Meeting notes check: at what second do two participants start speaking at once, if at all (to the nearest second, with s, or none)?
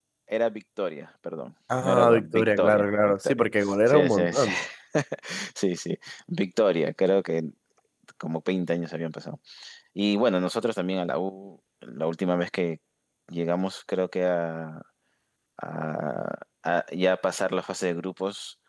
2 s